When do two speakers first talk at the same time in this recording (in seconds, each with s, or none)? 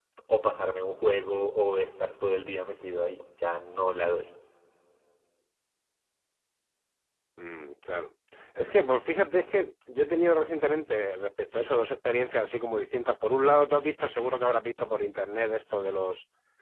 none